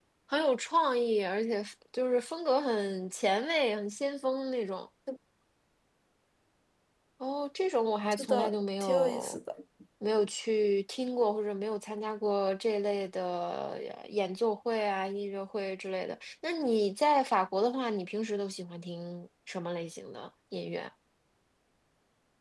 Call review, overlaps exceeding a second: present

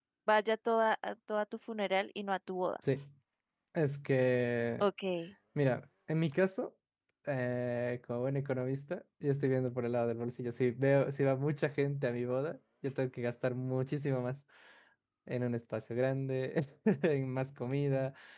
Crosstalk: none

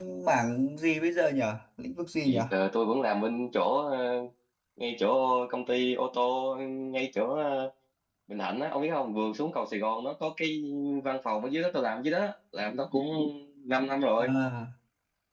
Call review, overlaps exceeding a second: none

